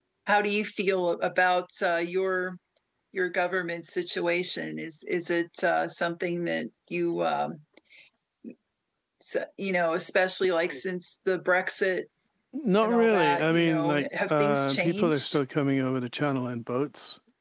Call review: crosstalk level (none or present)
present